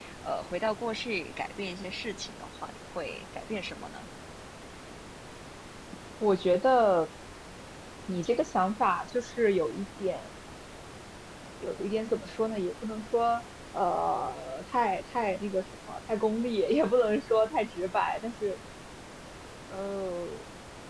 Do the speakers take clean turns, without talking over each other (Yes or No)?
Yes